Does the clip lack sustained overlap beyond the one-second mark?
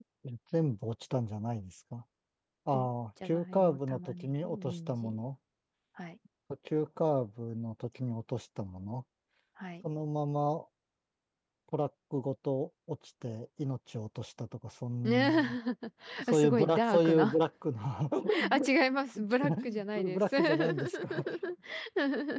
No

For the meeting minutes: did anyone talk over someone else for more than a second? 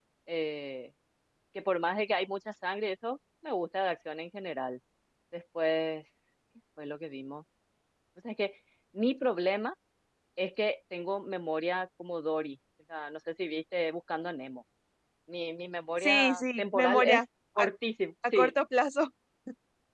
Yes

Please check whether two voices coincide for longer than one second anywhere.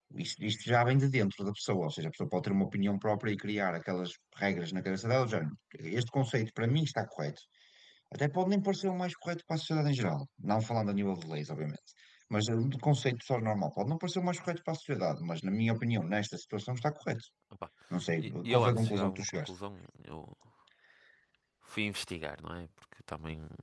Yes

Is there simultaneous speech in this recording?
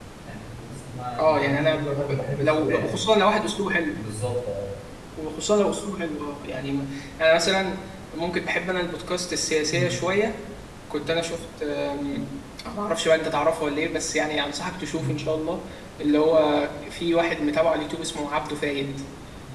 Yes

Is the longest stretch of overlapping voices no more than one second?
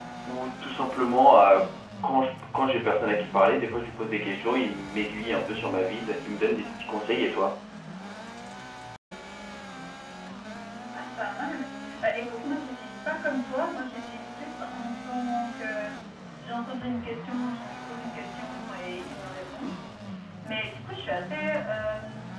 Yes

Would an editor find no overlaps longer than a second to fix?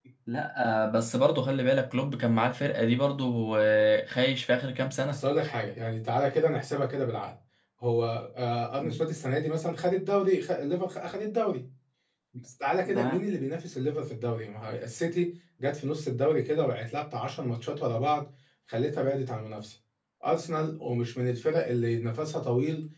Yes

